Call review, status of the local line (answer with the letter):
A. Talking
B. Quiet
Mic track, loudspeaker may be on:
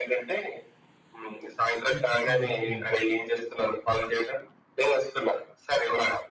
A